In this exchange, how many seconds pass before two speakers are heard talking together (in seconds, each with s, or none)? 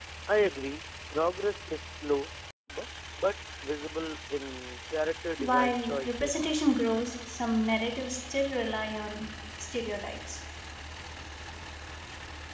5.4 s